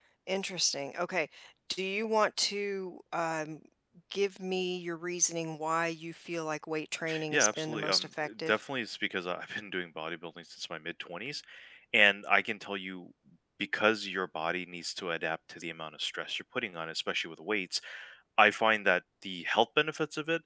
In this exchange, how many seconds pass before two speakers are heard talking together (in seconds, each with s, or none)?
7.1 s